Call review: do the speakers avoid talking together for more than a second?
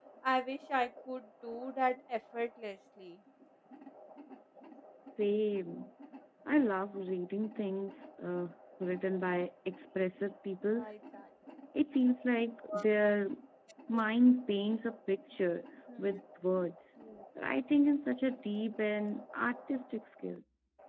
Yes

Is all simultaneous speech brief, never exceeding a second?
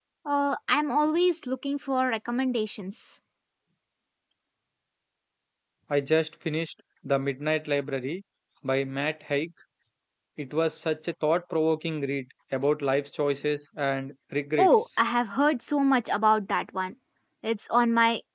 Yes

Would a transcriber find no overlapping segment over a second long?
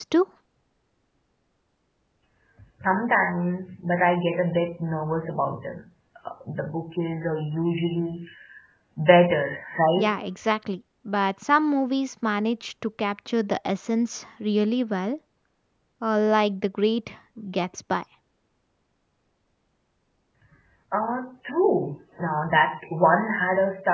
Yes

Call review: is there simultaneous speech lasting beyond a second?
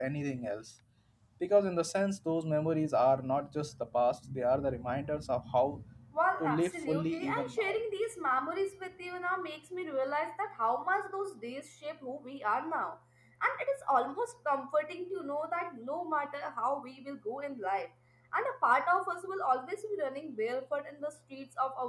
Yes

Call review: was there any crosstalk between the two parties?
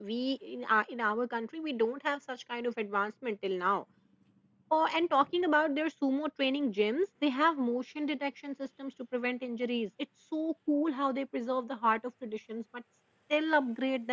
No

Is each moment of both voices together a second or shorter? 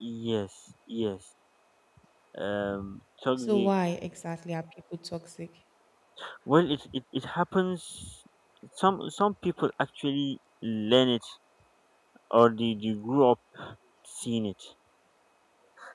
Yes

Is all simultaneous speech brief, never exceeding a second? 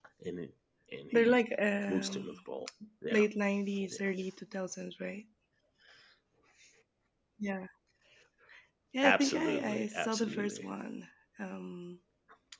No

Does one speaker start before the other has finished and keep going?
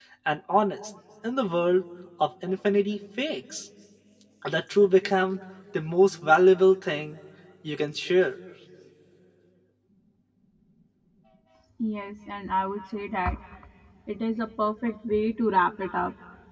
No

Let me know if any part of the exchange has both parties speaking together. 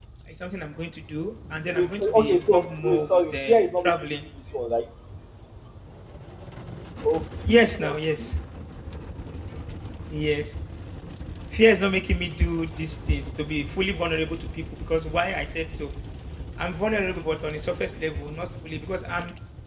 Yes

